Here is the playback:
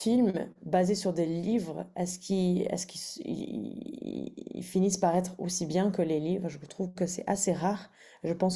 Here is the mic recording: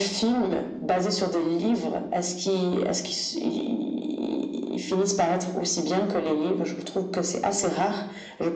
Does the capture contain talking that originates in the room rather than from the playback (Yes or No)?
No